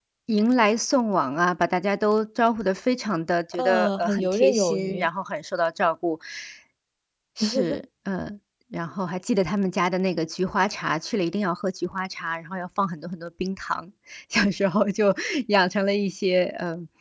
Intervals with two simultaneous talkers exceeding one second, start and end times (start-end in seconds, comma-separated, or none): 3.5-5.1